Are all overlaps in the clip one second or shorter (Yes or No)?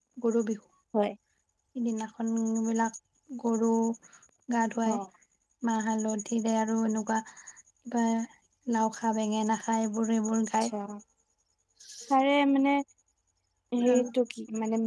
Yes